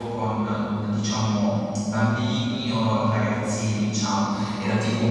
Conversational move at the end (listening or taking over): listening